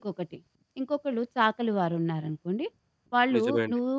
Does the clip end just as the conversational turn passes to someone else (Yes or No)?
No